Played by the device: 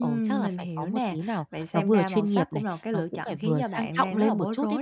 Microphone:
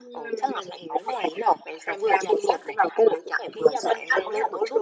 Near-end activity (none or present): none